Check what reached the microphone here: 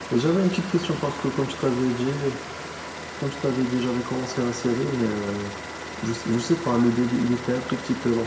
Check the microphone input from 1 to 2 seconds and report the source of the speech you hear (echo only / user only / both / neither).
echo only